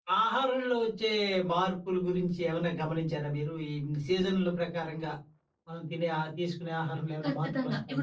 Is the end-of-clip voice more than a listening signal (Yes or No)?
Yes